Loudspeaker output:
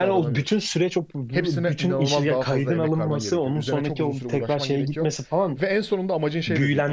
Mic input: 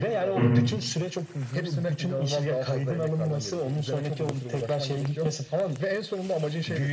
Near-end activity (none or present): present